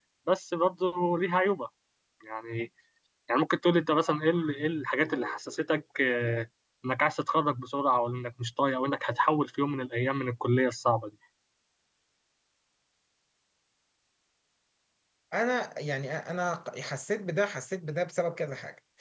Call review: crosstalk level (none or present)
none